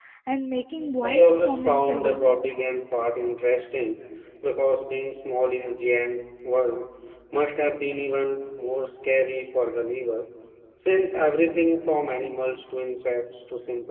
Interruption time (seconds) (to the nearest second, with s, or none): 1 s